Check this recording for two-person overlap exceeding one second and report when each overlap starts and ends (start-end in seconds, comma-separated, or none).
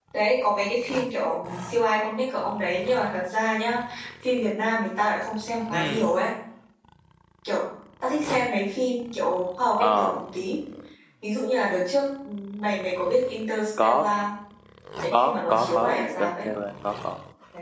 15.1-16.5